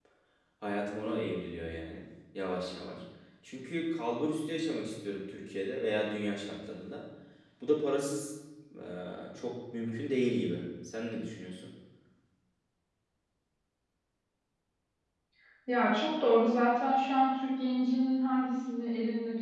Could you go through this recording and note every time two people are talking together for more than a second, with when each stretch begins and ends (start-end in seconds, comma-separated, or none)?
none